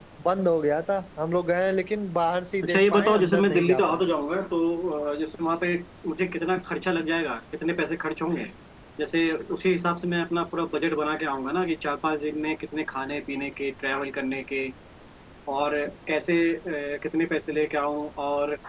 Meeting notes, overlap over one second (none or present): present